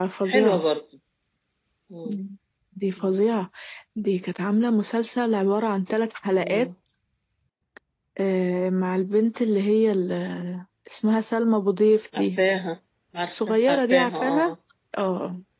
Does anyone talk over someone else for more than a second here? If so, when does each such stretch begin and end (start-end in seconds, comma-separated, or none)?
13.3-14.5